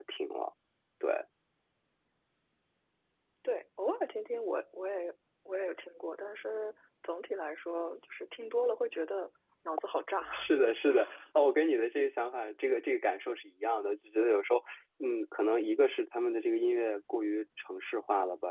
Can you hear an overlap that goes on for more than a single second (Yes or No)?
No